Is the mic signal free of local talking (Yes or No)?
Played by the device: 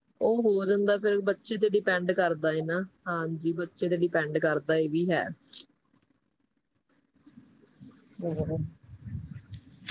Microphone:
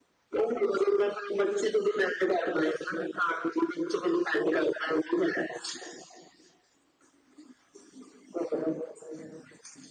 Yes